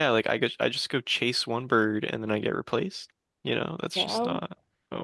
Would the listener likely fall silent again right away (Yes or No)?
Yes